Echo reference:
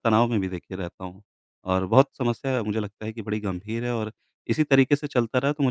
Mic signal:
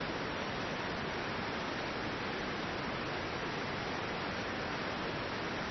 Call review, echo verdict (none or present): none